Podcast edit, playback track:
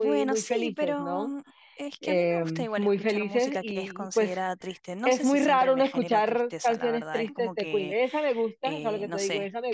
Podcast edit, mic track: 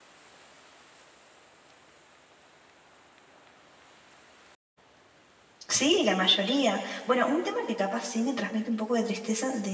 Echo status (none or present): none